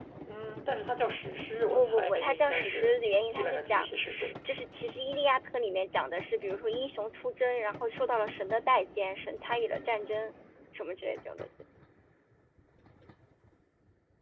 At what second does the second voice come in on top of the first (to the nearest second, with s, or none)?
2 s